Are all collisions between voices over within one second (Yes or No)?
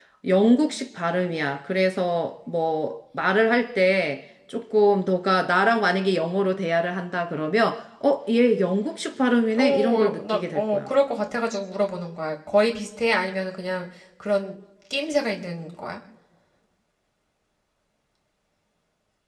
No